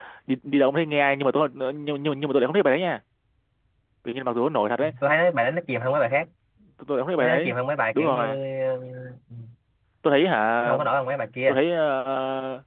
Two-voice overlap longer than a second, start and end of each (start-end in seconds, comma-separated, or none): none